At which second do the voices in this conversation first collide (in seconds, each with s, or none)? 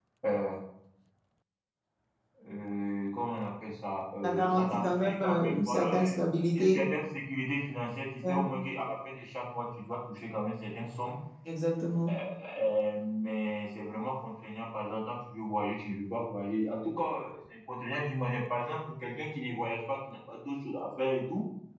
4.2 s